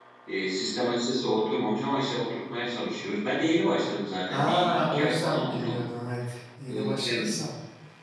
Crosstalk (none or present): present